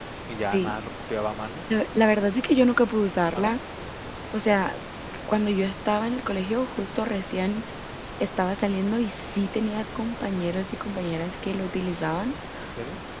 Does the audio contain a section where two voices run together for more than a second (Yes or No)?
No